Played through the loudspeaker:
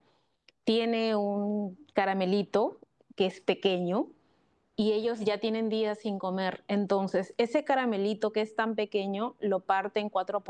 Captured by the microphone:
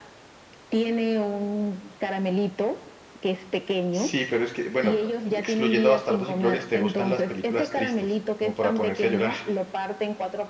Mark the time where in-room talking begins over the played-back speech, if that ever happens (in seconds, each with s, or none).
3.9 s